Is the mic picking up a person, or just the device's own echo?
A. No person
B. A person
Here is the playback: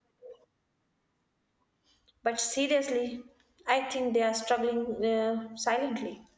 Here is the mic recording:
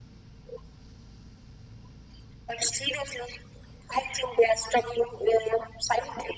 A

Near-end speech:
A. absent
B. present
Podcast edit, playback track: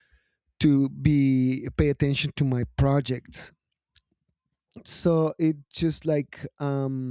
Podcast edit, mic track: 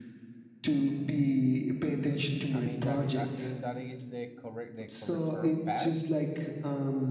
B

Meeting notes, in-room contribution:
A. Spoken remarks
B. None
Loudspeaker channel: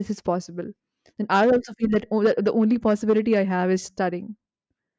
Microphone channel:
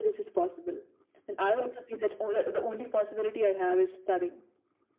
B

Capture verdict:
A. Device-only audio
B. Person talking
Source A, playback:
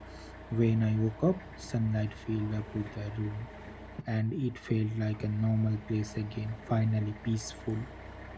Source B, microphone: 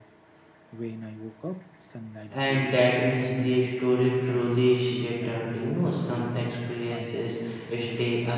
B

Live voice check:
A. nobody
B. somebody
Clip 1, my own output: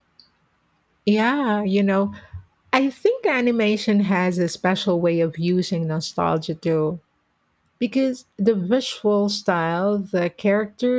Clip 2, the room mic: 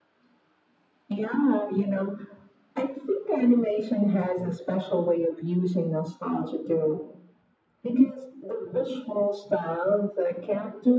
A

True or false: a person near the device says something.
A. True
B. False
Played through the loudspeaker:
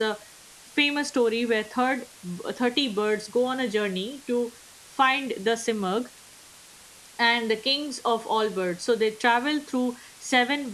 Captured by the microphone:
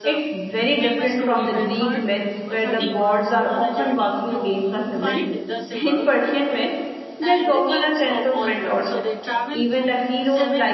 A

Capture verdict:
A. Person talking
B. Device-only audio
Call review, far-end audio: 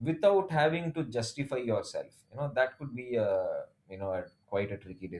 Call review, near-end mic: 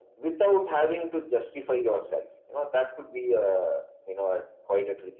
B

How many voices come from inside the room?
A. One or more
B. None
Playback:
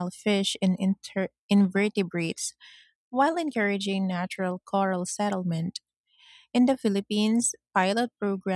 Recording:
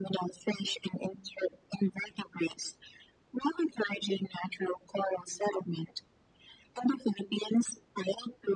B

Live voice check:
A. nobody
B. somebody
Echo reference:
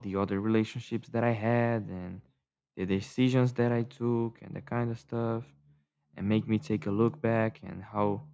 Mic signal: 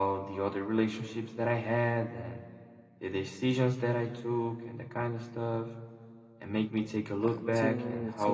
B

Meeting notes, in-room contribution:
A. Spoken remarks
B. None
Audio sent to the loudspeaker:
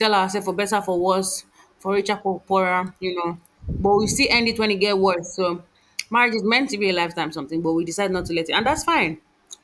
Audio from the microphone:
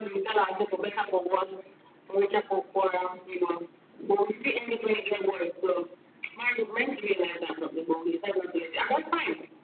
B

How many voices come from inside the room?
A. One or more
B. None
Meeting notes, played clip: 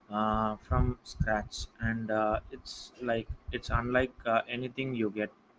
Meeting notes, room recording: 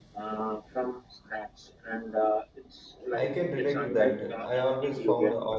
A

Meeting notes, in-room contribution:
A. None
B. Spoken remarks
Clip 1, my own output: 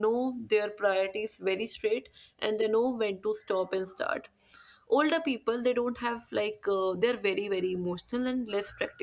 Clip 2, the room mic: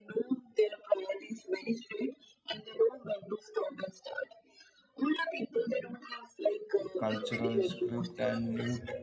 B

